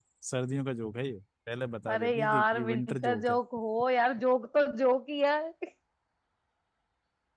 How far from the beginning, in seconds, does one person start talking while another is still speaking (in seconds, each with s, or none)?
1.9 s